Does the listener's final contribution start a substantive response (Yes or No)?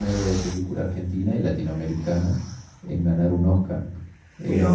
No